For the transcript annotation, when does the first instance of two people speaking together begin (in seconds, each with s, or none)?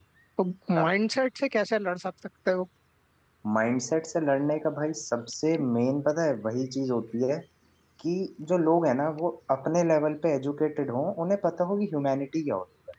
none